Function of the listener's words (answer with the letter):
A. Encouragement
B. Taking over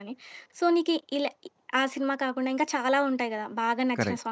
A